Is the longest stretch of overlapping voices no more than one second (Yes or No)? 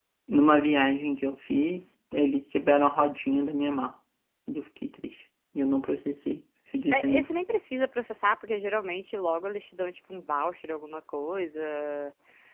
Yes